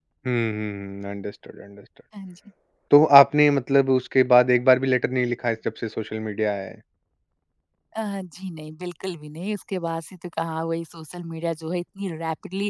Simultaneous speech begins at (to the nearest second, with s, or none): none